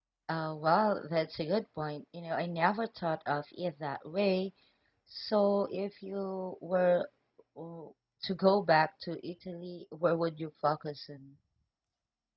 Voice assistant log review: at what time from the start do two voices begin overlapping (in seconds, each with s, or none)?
none